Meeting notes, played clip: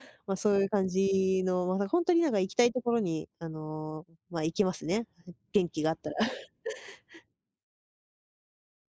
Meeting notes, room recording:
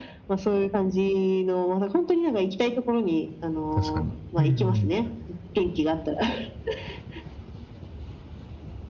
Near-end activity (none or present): present